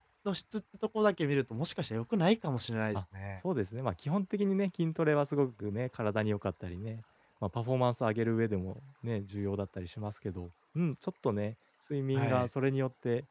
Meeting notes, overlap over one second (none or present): none